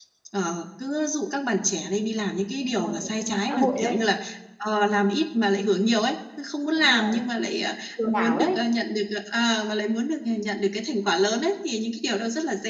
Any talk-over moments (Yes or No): Yes